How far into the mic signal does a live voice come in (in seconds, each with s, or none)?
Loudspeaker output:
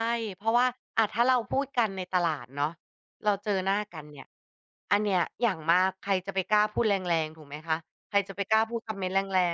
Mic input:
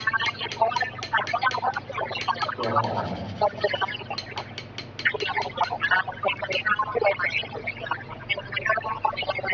2.6 s